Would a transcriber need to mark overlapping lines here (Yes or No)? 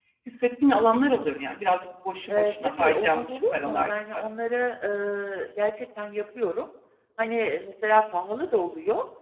Yes